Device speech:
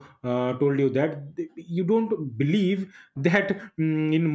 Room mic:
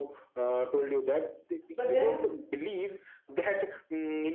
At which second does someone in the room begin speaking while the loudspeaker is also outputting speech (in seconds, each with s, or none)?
1.8 s